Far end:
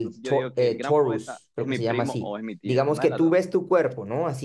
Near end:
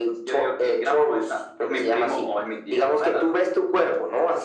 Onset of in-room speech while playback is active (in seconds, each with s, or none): none